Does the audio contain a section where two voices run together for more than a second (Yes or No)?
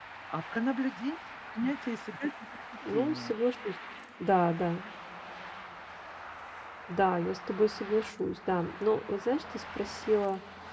No